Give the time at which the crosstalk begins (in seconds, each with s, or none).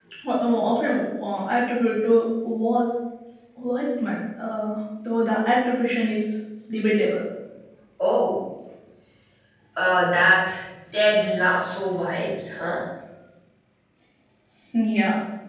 none